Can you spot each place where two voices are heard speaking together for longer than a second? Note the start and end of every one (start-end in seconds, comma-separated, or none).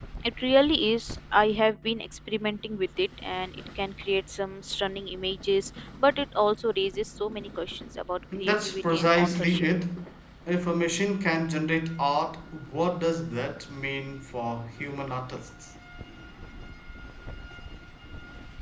8.4-9.6